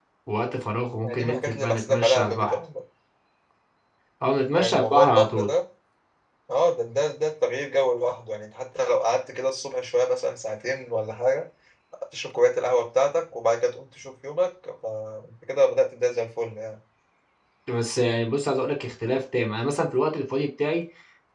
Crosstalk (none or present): present